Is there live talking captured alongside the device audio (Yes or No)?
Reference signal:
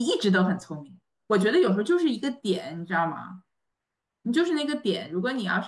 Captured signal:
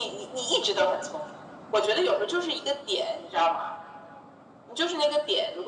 No